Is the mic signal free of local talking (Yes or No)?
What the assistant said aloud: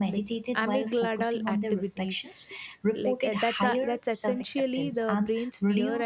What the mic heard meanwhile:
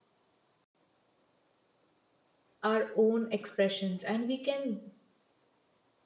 No